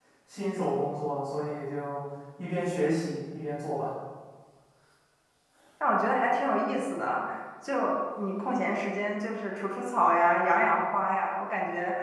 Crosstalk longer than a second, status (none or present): none